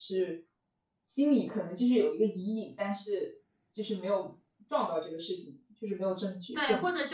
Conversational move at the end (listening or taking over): taking over